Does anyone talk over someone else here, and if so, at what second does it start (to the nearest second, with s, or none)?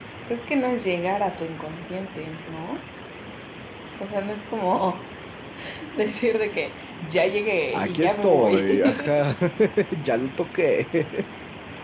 8 s